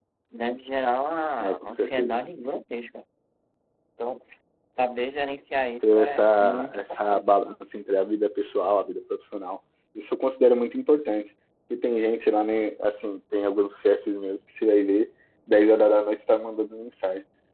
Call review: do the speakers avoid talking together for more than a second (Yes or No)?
No